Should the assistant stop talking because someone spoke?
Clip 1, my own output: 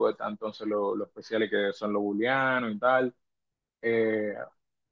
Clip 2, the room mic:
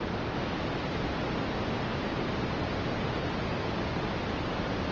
No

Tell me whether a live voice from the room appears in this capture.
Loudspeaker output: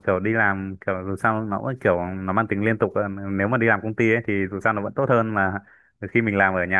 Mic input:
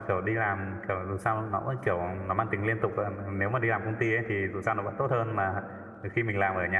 No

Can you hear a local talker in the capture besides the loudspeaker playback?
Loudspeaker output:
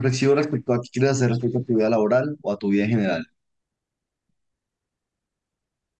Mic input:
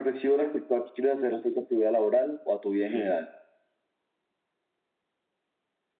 Yes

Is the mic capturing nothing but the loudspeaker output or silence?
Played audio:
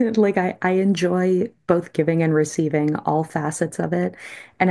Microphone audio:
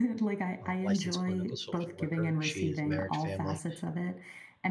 No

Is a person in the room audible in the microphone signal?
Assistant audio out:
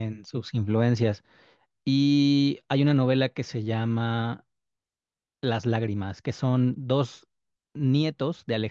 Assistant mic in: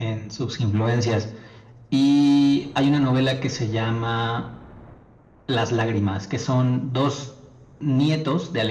No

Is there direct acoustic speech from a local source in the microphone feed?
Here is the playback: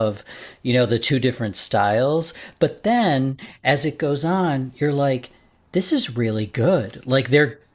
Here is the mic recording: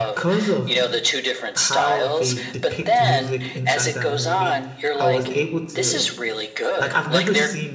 Yes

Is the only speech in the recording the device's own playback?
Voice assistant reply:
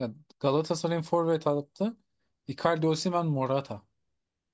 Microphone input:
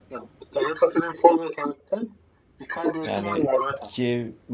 No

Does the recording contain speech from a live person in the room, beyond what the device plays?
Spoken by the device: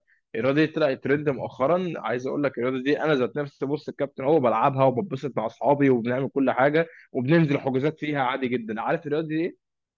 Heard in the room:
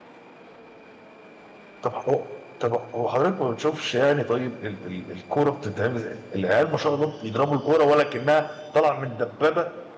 Yes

